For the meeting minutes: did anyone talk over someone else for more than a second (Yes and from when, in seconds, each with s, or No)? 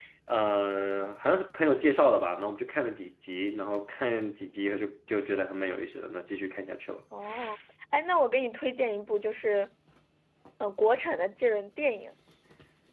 No